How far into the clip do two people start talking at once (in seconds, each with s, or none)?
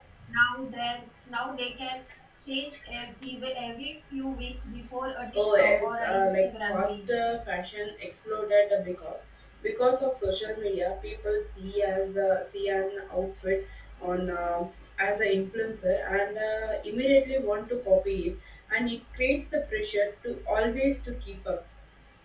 5.3 s